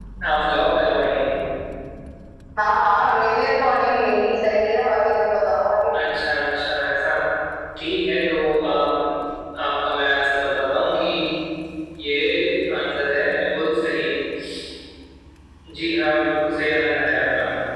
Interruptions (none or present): none